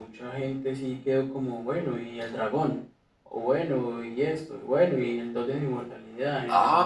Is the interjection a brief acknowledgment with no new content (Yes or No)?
No